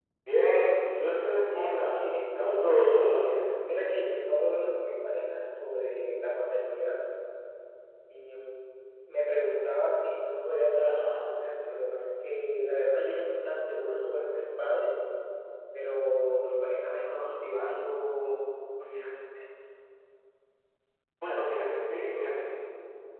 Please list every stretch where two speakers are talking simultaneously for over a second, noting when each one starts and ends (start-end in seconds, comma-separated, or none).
1.4-3.4